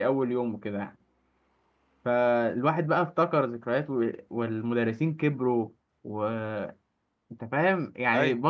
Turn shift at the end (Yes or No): No